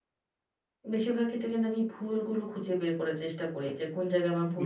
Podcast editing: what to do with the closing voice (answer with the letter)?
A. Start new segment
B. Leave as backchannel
B